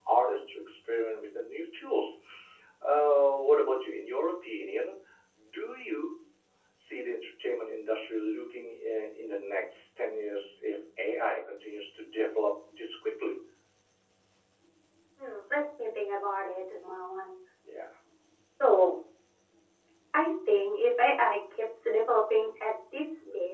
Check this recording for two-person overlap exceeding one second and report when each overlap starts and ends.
none

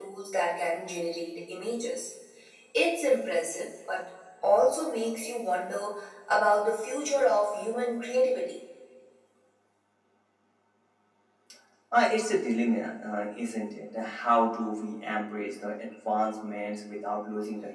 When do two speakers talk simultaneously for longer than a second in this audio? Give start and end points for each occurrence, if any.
none

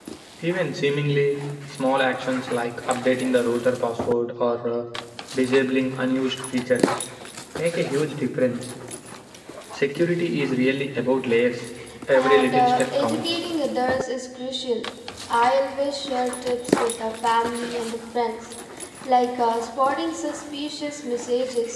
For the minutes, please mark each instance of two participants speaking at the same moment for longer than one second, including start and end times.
12.1-13.4

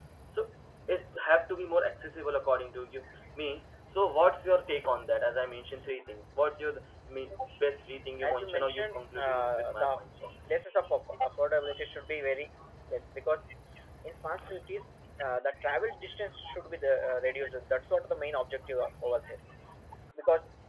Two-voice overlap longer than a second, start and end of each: 8.2-10.0

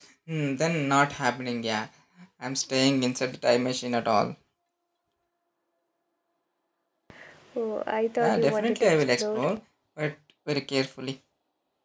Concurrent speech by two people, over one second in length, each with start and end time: 8.2-9.4

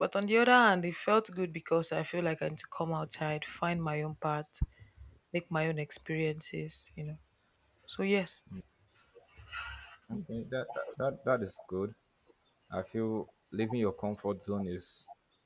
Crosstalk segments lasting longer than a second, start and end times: none

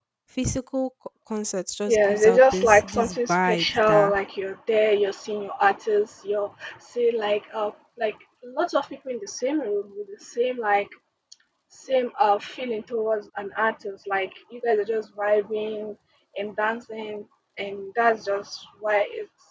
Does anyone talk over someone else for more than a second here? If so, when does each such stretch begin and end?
1.9-4.2

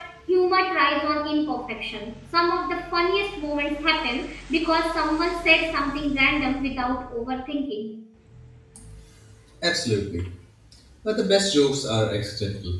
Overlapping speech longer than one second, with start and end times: none

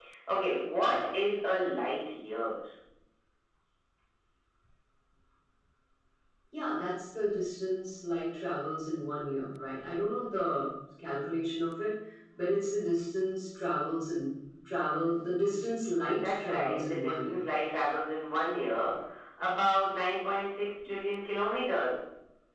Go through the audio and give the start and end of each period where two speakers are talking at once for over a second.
16.2-17.5

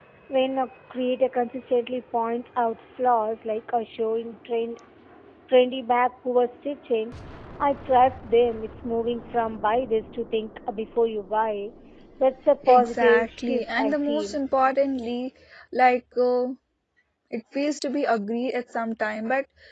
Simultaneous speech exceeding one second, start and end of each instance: 12.7-14.4

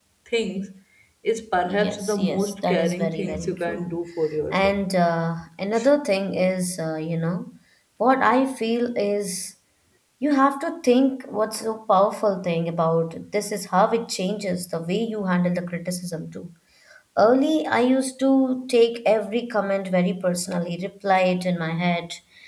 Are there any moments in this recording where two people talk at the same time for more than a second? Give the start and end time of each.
1.6-4.0

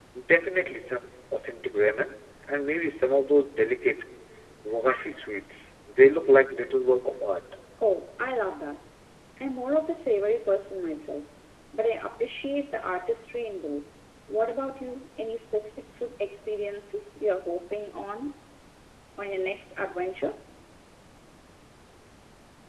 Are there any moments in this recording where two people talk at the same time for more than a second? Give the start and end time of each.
none

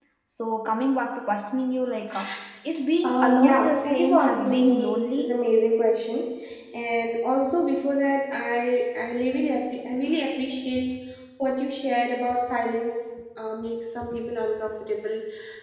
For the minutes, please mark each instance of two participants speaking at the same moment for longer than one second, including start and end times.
3.0-5.3

